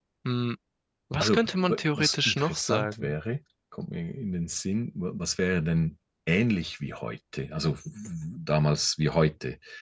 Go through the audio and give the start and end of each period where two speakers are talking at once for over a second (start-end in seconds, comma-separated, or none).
1.2-3.1